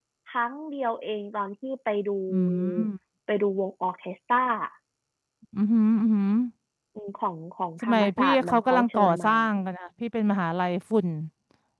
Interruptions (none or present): present